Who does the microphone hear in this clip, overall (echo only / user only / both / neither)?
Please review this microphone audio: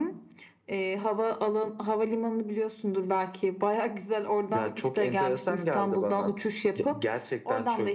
echo only